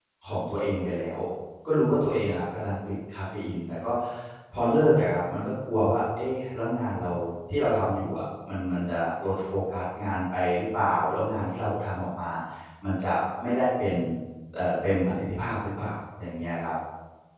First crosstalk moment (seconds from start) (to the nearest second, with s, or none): none